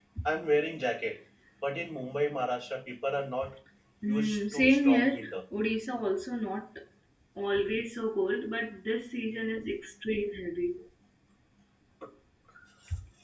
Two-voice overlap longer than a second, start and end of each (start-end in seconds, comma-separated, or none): 4.1-5.3